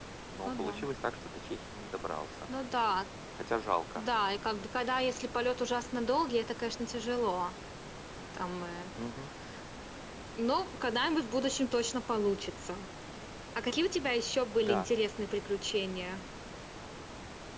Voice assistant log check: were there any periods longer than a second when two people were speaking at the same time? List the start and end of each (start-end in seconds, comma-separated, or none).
none